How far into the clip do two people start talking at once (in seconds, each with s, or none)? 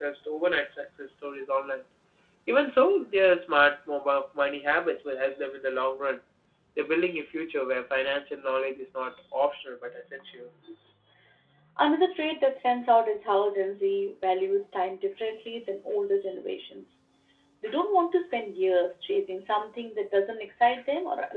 none